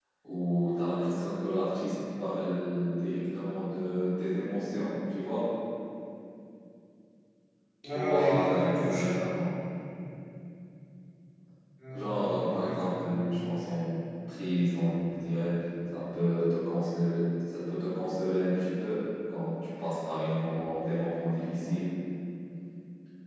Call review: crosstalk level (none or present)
present